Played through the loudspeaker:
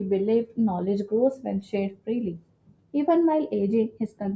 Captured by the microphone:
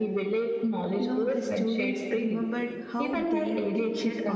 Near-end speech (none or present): present